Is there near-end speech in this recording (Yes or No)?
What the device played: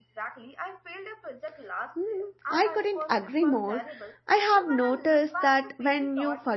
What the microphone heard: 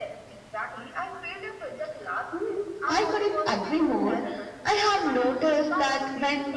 No